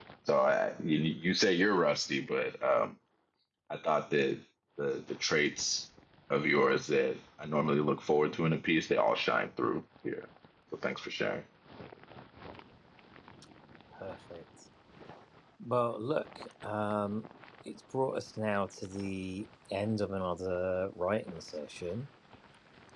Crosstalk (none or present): none